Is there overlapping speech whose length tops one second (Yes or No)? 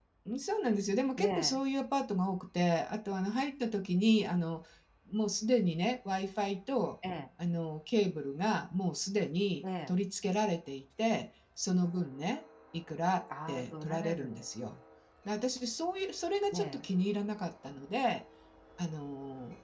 Yes